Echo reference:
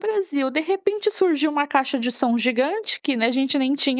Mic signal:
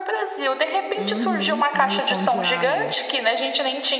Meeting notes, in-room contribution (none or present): present